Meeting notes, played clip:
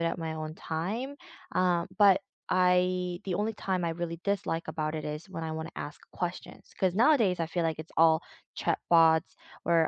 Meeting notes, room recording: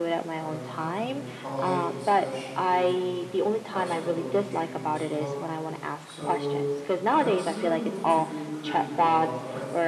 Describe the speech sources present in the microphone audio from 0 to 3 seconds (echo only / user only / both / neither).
both